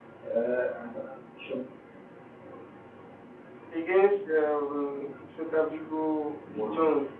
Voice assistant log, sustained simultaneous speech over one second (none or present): none